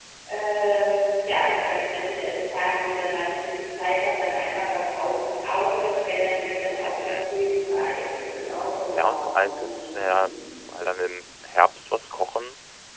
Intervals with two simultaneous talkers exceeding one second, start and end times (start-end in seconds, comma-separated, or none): 8.9-10.2